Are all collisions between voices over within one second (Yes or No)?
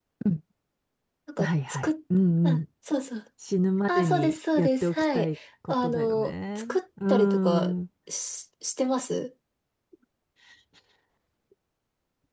No